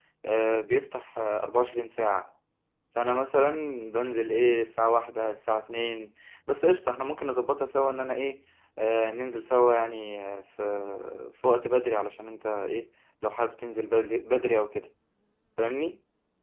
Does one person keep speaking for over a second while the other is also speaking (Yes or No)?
No